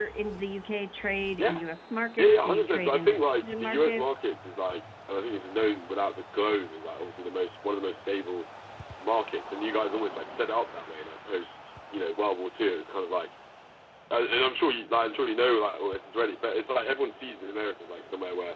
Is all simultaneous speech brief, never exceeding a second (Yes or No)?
No